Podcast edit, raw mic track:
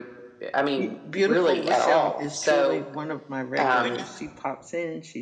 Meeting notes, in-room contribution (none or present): present